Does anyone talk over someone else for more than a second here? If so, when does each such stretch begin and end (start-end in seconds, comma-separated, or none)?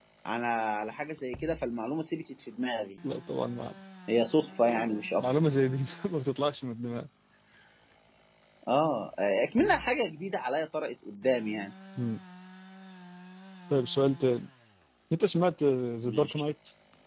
none